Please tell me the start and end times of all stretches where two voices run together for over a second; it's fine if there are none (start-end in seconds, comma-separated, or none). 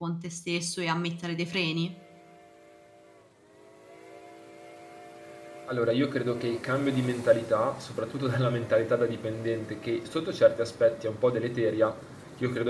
none